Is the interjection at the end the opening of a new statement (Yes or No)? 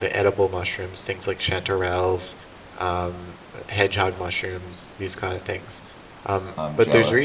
No